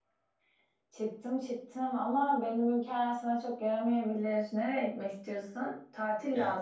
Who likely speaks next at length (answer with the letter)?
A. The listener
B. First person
B